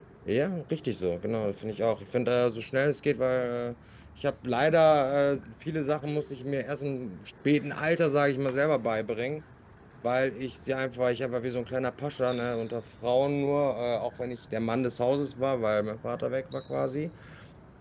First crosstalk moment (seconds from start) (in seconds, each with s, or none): none